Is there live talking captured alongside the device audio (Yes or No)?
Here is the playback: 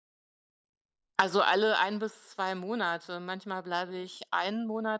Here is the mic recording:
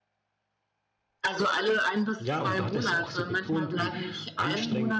Yes